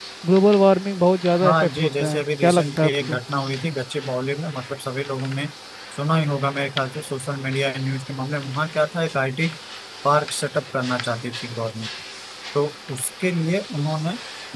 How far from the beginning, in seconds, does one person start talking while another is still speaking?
1 s

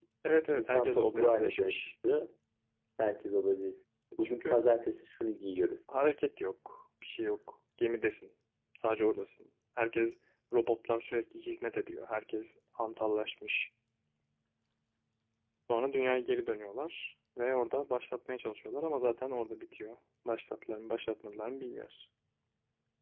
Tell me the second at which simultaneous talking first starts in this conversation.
1 s

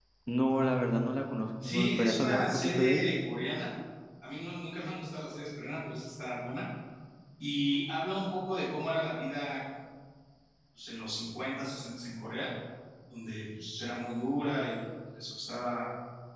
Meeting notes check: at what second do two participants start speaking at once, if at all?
2 s

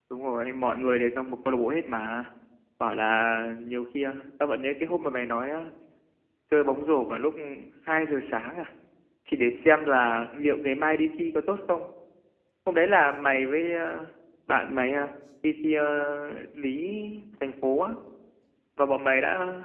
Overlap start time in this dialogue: none

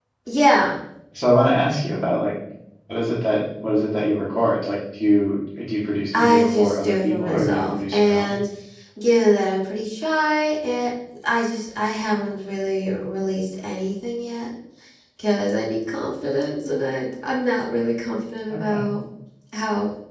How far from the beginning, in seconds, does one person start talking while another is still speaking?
6 s

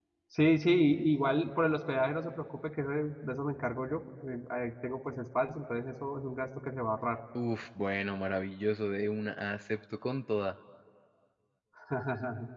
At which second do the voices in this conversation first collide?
none

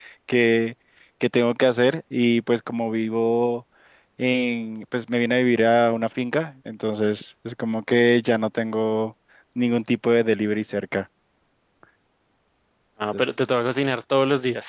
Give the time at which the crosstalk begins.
none

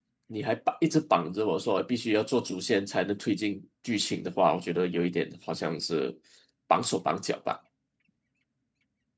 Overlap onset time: none

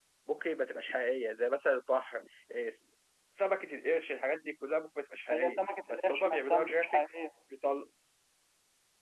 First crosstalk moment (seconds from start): 5 s

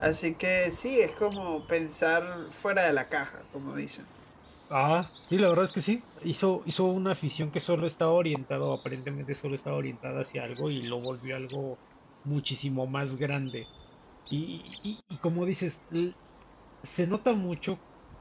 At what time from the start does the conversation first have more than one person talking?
none

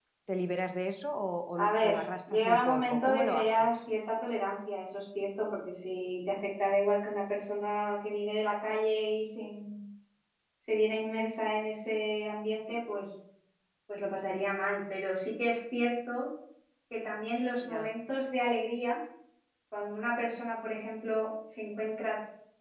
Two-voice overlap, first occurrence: 2 s

